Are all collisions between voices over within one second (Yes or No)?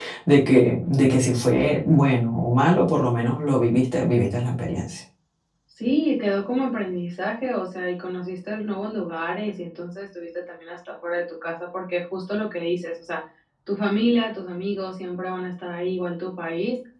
Yes